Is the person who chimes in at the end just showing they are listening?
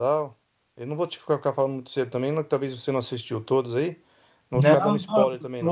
No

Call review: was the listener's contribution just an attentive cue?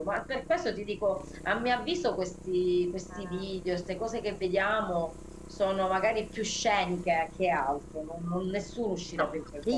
No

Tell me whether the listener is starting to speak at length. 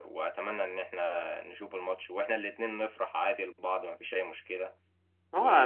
Yes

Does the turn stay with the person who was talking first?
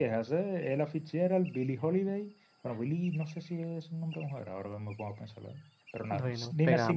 Yes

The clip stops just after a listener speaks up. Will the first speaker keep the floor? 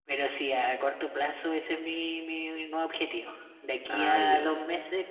Yes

